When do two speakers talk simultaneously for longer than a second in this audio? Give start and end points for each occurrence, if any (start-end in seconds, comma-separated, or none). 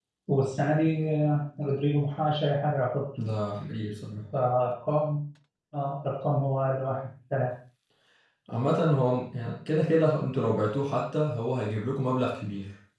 none